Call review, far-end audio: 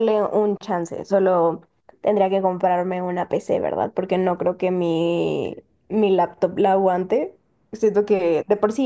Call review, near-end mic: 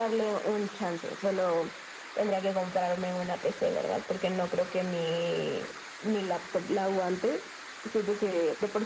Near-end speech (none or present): none